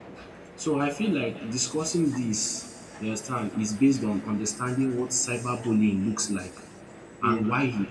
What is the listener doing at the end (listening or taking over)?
listening